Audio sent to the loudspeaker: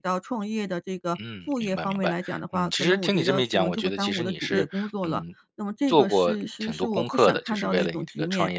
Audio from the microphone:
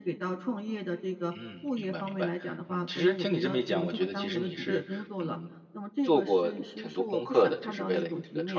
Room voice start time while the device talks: none

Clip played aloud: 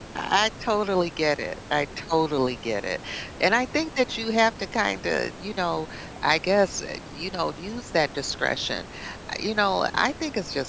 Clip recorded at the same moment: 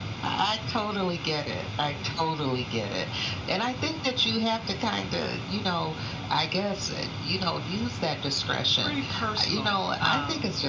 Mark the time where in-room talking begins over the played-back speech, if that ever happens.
8.7 s

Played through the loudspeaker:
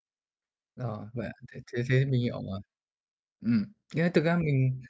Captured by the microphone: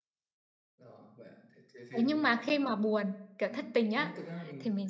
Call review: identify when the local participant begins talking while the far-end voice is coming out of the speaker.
2.0 s

